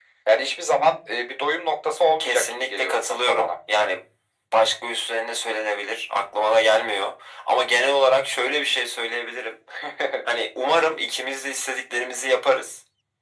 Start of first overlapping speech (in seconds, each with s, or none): 2.2 s